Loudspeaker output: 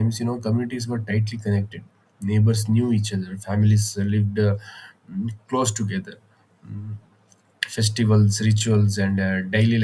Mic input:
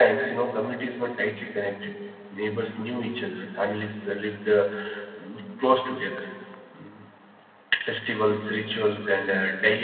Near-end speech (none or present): none